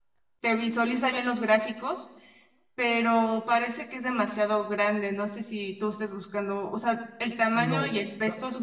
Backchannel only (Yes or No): No